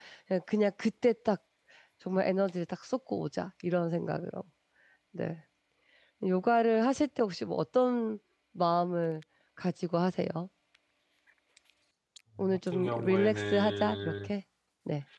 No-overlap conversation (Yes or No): No